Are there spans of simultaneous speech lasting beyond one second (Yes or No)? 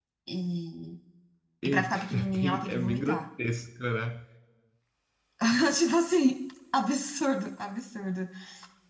Yes